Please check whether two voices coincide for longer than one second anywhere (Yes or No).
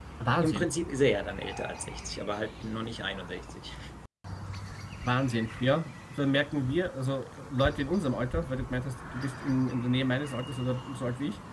No